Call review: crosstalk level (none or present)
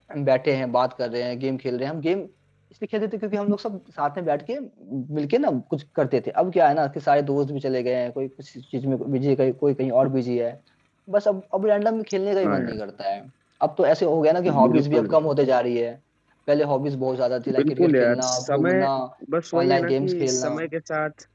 present